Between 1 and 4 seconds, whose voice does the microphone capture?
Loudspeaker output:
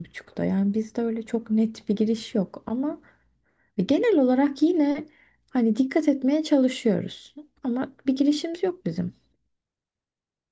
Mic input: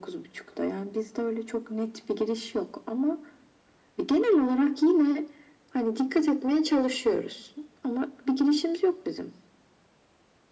echo only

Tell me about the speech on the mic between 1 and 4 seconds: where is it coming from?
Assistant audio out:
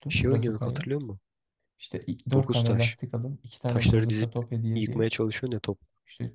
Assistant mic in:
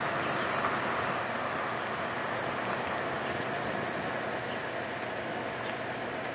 neither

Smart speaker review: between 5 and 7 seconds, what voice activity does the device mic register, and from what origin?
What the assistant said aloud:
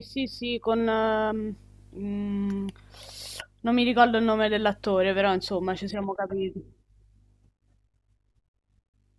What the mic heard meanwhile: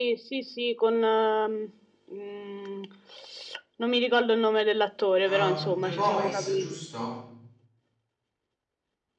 both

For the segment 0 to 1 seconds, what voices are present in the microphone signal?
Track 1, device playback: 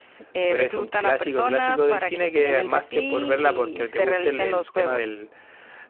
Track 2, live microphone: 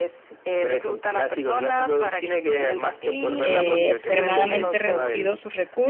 echo only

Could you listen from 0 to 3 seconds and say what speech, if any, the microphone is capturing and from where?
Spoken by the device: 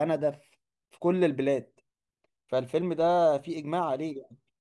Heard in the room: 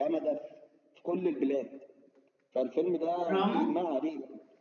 echo only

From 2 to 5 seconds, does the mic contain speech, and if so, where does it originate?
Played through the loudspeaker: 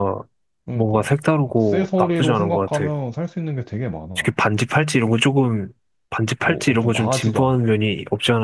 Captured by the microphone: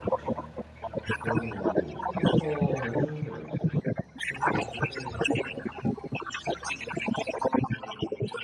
both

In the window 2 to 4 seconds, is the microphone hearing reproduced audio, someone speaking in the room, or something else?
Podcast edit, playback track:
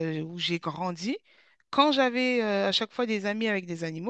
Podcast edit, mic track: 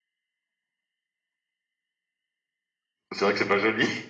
user only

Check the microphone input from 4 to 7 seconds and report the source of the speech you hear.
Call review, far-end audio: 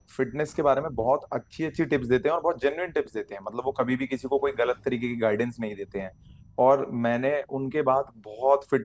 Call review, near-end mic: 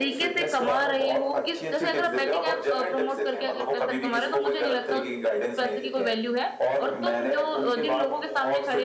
both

